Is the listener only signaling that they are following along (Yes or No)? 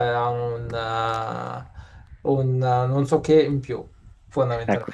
No